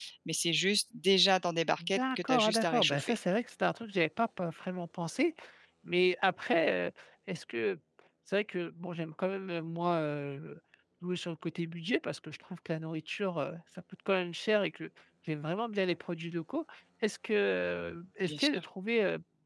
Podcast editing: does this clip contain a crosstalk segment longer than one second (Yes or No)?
Yes